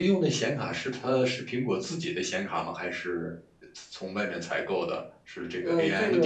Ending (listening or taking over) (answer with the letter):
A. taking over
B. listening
A